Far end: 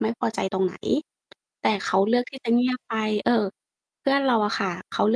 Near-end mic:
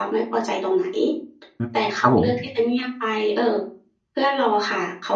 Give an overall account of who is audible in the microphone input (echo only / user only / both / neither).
both